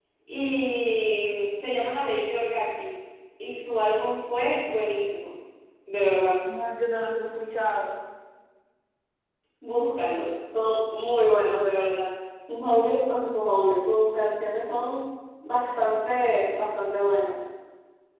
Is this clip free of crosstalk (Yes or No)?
Yes